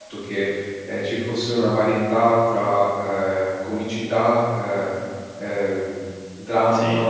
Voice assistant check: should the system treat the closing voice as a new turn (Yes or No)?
No